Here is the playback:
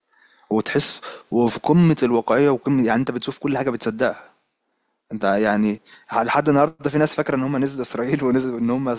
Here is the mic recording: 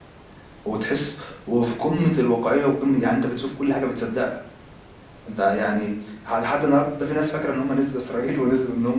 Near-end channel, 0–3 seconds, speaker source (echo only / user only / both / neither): echo only